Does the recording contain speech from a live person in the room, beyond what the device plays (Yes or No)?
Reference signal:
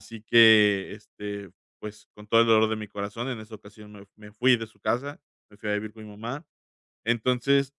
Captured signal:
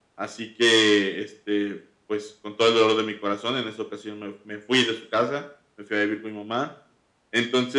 No